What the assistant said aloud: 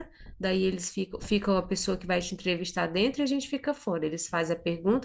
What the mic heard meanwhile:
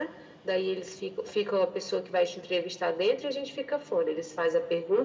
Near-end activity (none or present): none